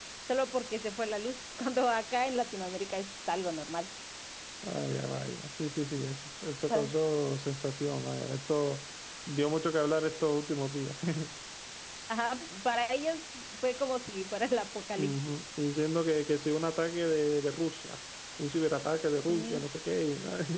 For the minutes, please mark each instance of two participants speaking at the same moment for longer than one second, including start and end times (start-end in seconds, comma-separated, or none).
none